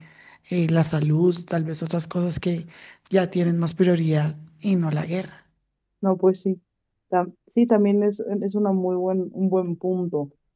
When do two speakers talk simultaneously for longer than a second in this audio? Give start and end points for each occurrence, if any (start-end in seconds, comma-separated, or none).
none